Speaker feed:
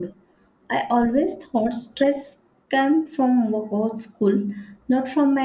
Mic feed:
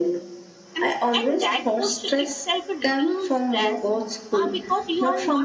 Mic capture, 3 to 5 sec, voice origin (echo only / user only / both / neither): both